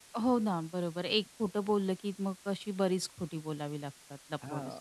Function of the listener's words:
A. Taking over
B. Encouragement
A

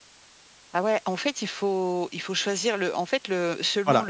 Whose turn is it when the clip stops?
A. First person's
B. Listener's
A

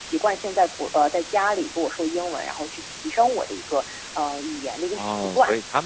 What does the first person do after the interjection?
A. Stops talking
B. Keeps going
A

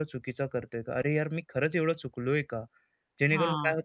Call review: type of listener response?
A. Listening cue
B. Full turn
A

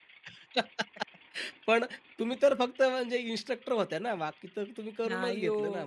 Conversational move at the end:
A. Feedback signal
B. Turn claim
B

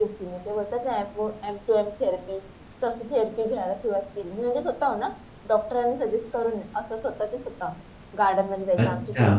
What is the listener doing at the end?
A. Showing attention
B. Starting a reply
A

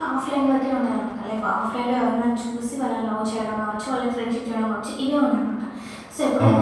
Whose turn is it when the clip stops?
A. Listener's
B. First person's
B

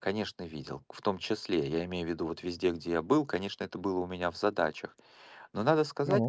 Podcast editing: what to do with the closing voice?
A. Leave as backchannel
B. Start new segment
A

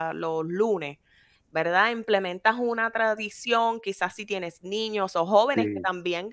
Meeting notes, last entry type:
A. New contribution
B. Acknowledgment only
B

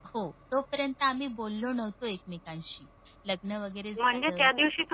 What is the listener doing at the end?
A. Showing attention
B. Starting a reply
B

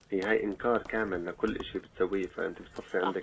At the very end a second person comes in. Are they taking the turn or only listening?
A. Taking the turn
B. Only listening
A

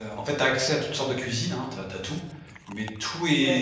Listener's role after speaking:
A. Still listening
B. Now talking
B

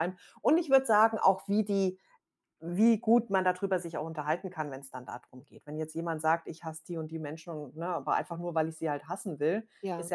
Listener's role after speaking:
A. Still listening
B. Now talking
A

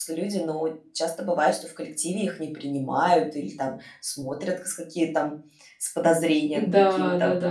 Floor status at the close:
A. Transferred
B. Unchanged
A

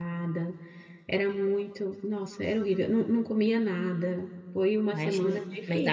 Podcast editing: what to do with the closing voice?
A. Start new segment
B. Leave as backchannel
A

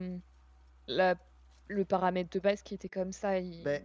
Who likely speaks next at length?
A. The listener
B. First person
B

